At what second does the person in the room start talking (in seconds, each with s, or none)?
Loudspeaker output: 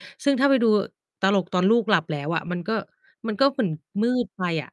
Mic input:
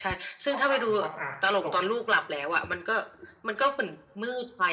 0.5 s